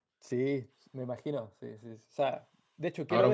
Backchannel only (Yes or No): No